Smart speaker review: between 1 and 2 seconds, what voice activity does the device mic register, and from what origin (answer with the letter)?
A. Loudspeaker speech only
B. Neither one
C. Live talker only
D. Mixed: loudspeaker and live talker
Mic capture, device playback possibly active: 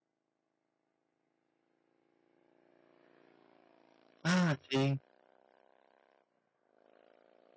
B